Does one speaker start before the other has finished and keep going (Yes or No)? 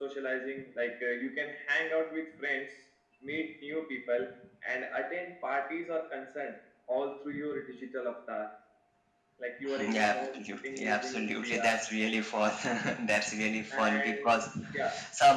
Yes